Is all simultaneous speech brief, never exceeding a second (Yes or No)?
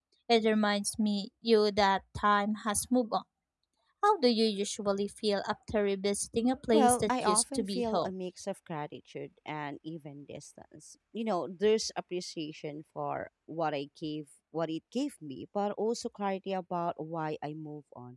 No